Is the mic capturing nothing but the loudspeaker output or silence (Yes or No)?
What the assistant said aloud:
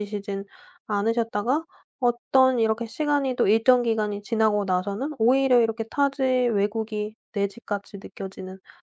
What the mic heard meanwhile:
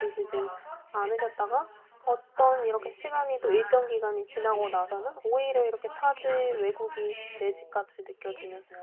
No